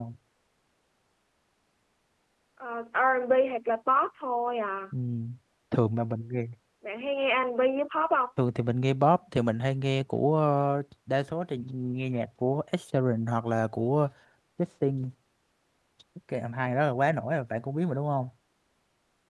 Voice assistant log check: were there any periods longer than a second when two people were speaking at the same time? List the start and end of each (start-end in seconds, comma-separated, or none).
none